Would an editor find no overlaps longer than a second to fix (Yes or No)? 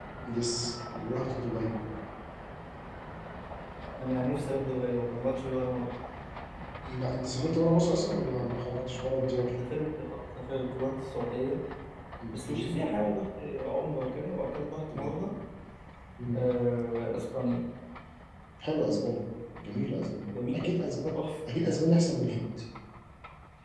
Yes